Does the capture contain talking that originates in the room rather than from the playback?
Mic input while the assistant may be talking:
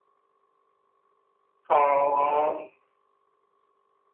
Yes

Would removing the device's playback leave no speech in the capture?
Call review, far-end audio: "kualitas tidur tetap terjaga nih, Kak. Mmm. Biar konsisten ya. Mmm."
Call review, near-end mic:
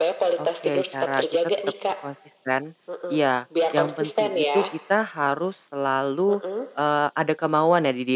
No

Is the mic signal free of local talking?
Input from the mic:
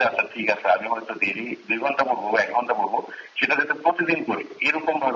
Yes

